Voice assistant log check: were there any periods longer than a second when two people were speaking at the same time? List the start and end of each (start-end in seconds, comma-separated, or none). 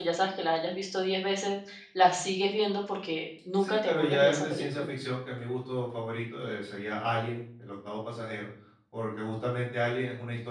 3.6-4.9